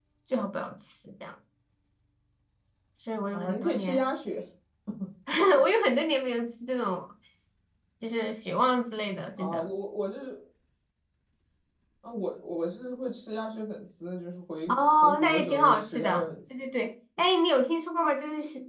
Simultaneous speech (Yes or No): Yes